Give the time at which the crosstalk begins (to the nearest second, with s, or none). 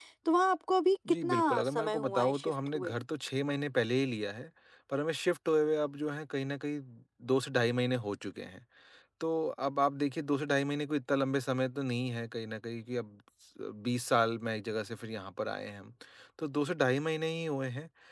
1 s